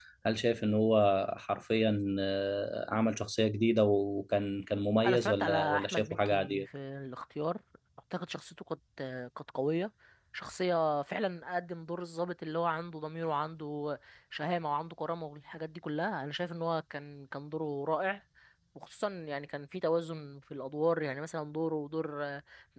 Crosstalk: present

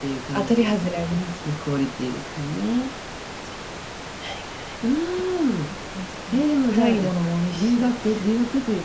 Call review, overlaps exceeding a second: none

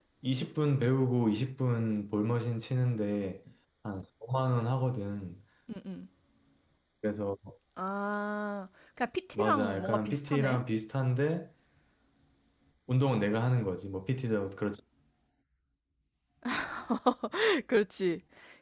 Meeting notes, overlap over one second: present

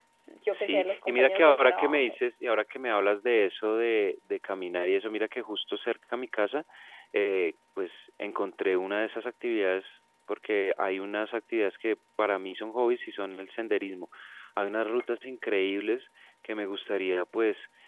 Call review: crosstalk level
present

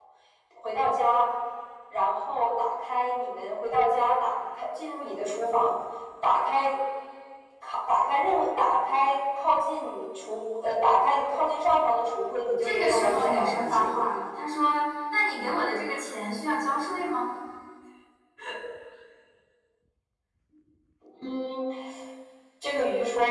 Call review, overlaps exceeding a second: present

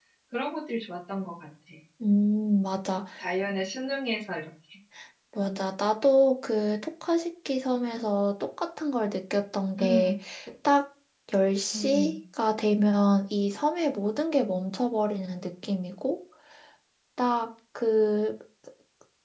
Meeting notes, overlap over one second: none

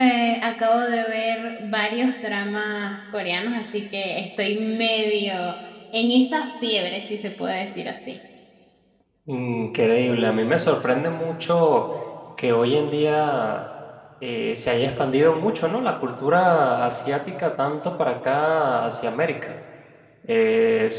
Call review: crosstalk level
none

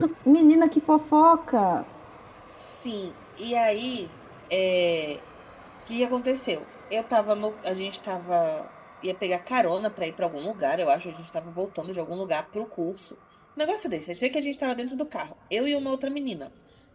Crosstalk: none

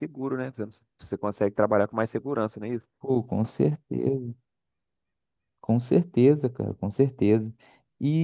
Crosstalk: none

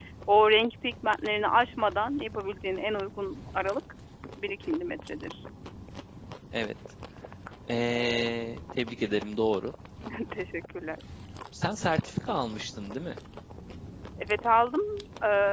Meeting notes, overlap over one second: none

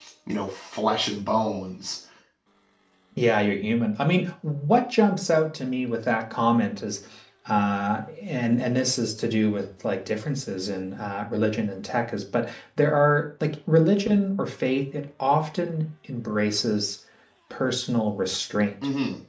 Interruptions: none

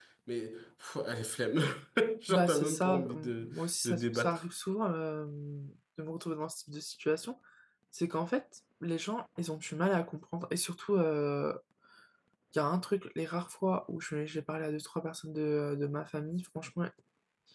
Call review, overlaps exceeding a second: present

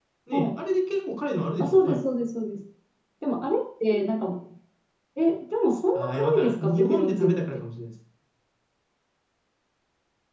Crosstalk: present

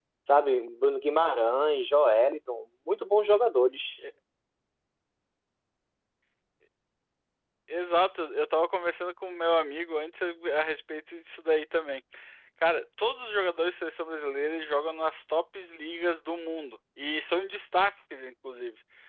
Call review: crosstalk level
none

